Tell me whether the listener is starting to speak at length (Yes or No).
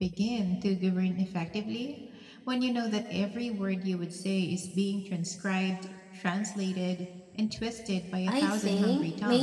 Yes